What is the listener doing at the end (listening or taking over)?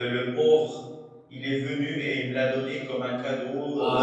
taking over